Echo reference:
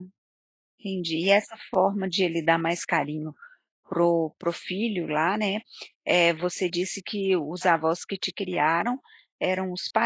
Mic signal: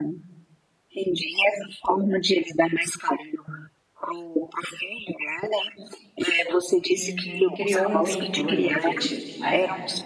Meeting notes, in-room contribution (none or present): present